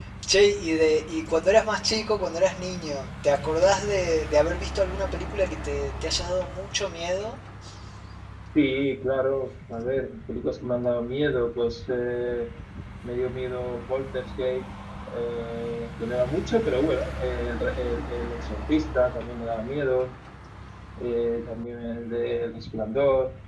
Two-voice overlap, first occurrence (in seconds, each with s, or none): none